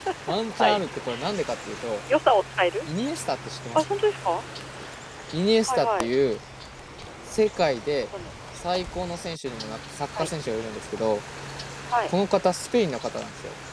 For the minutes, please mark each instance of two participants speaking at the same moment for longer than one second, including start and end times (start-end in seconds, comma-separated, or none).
none